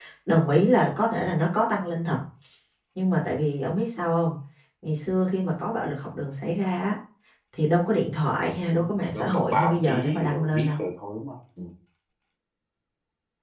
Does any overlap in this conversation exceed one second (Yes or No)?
Yes